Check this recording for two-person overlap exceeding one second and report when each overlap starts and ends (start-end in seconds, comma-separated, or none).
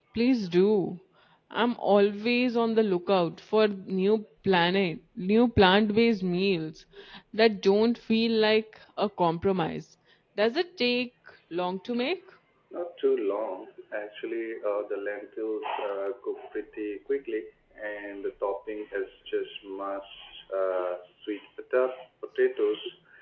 none